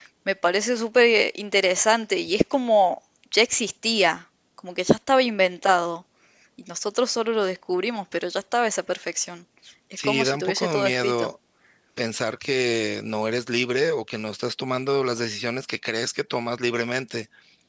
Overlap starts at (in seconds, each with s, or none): 10.0 s